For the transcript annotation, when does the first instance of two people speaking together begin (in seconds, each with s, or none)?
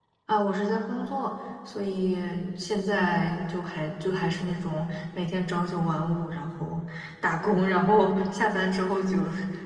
none